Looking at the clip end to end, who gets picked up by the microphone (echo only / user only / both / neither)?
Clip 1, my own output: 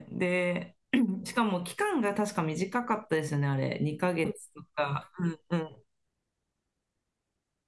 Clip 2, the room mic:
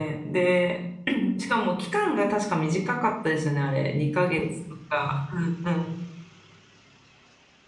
echo only